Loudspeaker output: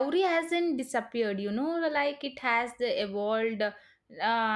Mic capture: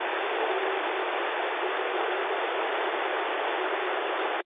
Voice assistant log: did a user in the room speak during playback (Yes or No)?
No